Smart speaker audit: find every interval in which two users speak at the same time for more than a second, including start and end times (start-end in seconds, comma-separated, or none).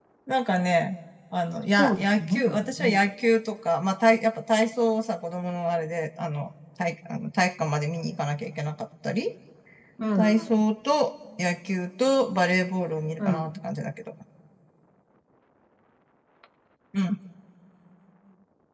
1.8-3.1